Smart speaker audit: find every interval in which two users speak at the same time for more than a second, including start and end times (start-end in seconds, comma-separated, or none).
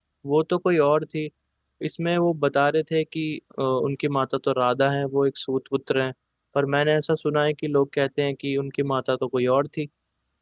none